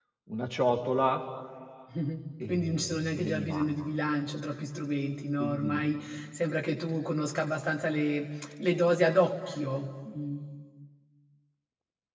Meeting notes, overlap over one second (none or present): present